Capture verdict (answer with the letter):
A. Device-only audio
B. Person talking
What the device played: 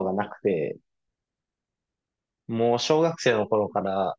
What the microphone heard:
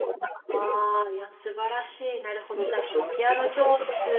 B